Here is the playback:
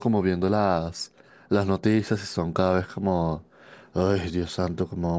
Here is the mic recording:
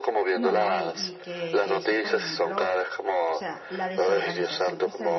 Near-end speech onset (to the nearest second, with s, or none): 0 s